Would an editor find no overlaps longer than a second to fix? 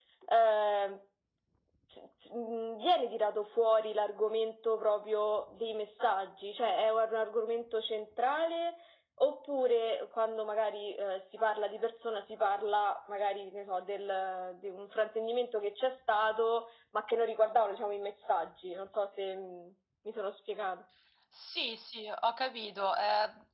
Yes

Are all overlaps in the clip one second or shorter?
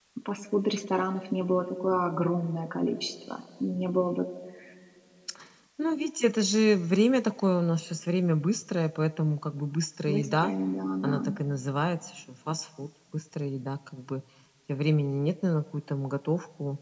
Yes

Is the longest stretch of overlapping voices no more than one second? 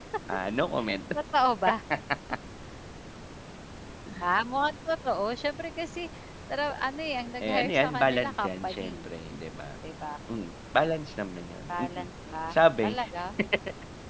No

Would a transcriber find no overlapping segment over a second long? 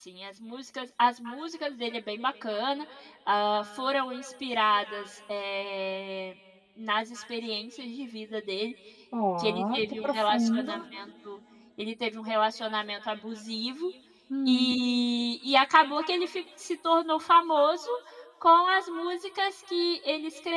No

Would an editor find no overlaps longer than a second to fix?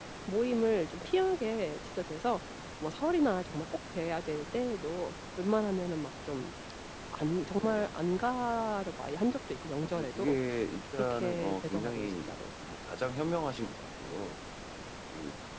No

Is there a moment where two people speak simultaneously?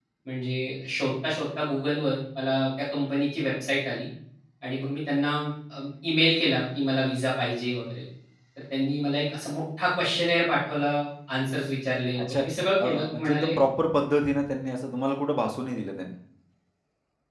Yes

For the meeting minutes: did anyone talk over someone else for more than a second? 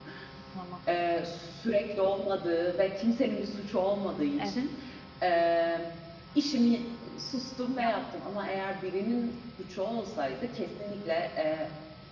No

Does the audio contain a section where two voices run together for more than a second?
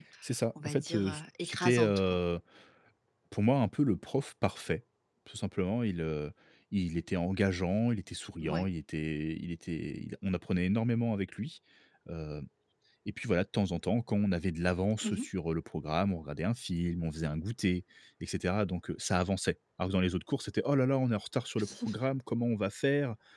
Yes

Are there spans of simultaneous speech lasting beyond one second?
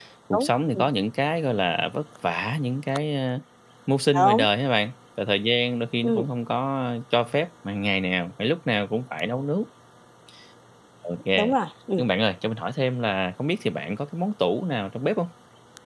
No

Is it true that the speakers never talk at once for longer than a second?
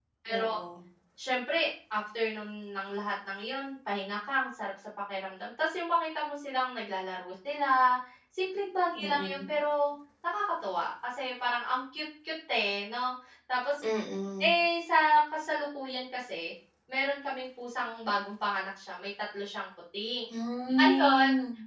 Yes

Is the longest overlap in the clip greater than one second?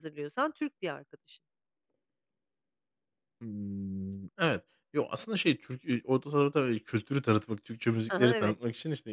No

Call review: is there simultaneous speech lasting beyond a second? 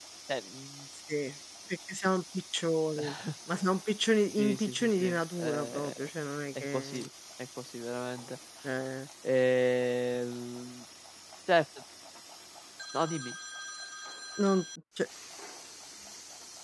Yes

